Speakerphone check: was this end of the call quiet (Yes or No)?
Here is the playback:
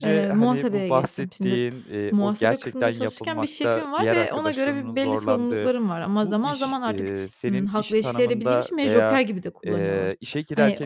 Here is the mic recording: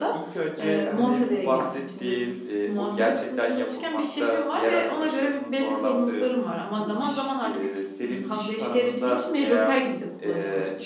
Yes